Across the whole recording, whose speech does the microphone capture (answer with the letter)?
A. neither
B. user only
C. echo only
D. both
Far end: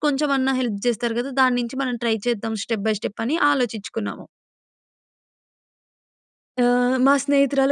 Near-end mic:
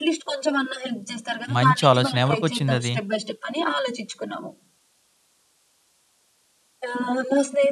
D